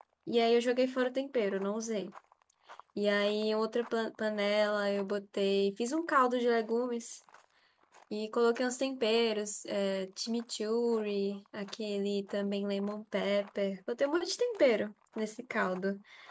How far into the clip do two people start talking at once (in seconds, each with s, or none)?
none